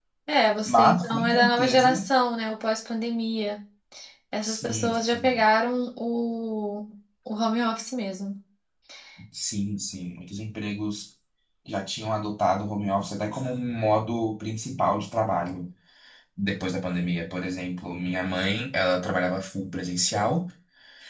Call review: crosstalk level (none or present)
present